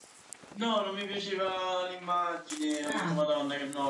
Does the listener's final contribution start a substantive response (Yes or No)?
No